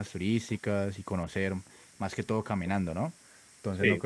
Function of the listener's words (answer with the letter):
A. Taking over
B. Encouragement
B